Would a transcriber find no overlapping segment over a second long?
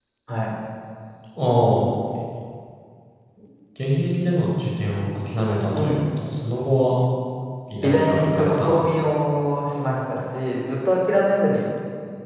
No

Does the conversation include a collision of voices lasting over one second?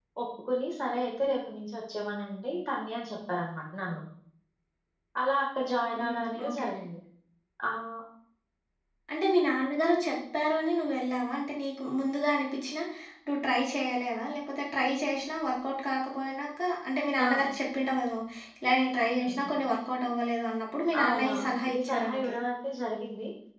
Yes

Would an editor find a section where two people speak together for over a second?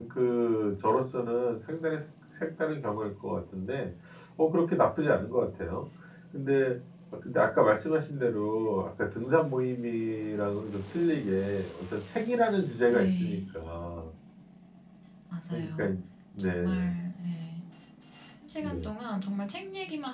No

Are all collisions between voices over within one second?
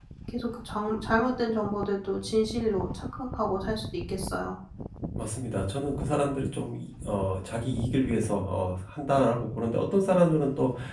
Yes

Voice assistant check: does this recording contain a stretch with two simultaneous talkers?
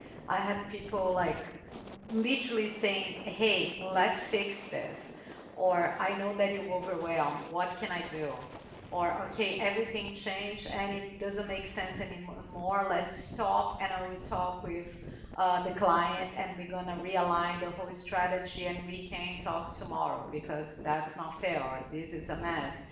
No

